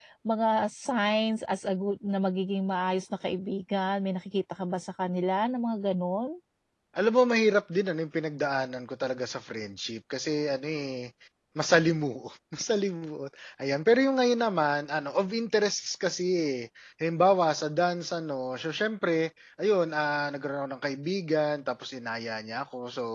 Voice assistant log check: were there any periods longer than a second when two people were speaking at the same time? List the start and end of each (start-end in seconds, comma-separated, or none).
none